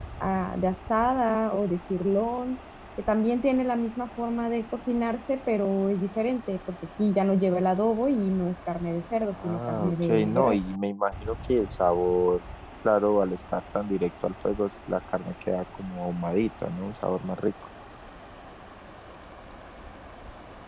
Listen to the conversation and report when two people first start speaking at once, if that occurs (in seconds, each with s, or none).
9.3 s